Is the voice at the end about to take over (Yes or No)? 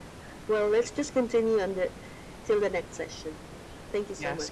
Yes